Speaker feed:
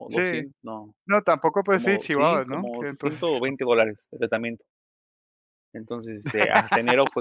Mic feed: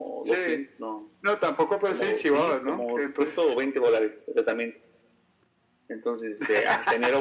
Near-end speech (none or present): none